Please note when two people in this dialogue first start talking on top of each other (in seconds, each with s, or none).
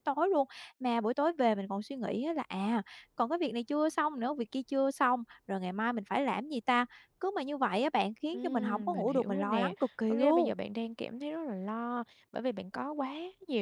8.3 s